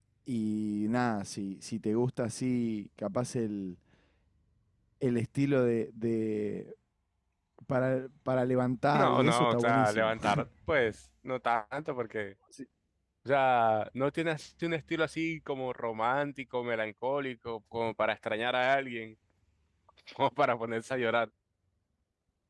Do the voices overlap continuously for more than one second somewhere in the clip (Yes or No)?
Yes